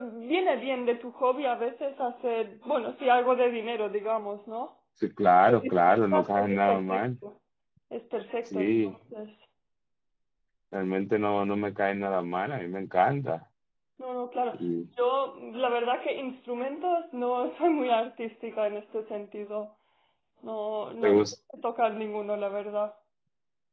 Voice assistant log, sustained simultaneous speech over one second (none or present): present